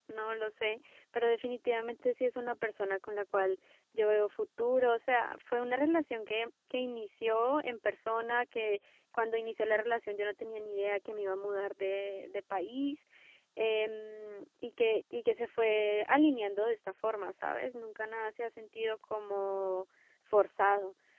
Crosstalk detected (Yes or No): No